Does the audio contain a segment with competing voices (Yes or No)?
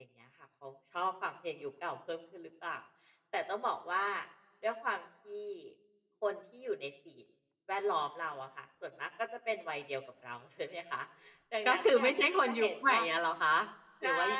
Yes